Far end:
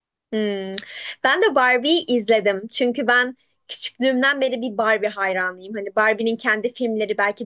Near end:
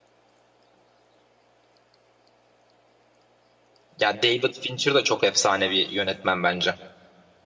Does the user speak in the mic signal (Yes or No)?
Yes